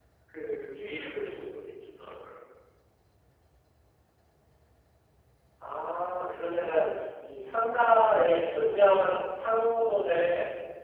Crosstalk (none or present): none